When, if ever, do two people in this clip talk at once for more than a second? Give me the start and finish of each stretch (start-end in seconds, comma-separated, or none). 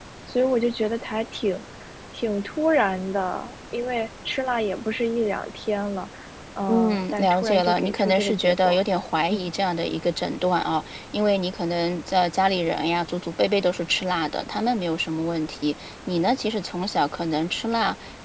6.7-8.8